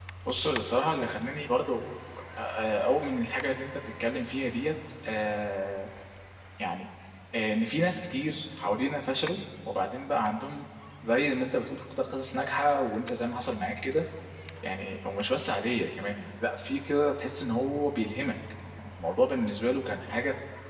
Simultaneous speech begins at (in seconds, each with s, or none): none